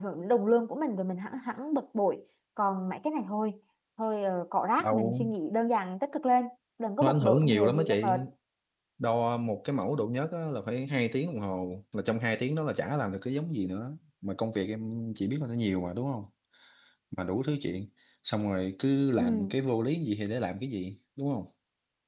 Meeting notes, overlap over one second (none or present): present